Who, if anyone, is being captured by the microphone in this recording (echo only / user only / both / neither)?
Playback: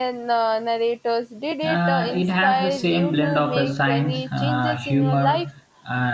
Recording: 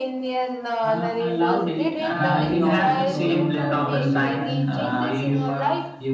both